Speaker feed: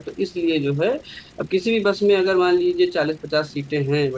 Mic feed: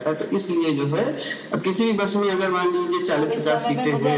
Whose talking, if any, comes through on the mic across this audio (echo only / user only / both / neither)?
both